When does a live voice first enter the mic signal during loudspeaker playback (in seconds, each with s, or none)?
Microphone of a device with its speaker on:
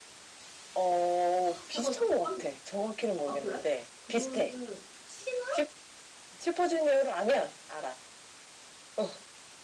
1.4 s